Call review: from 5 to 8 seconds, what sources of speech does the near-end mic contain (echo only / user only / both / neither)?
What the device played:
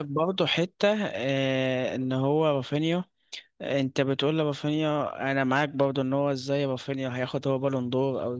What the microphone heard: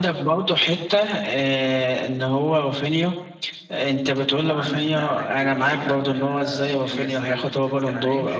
both